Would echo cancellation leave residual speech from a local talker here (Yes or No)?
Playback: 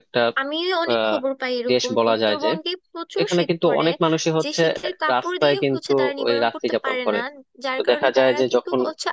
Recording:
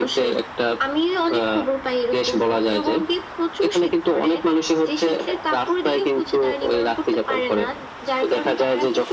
No